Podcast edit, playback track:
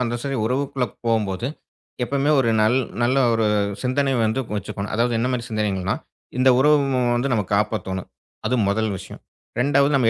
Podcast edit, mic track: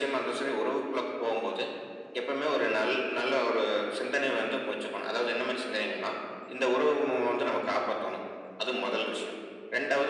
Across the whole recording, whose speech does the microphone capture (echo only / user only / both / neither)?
echo only